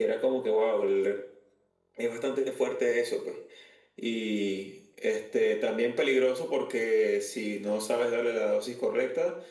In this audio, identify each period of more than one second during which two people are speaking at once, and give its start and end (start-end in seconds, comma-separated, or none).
none